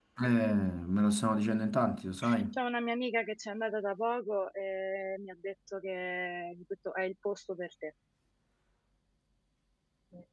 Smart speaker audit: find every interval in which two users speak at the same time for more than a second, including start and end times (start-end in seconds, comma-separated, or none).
none